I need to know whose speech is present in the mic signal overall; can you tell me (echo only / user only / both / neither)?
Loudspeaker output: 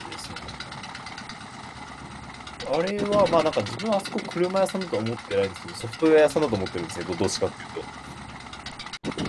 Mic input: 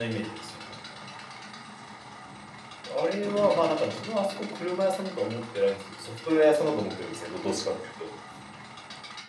echo only